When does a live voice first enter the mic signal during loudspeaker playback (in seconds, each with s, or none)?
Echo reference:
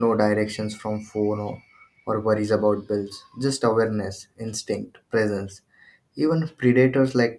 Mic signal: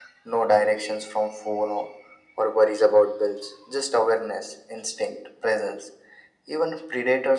none